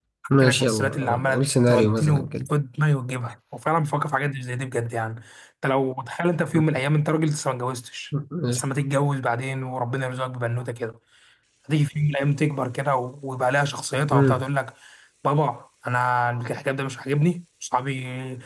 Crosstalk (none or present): present